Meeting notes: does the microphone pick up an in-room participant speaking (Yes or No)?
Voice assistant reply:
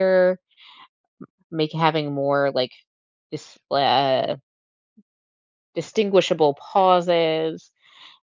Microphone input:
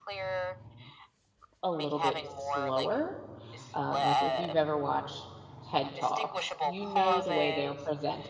Yes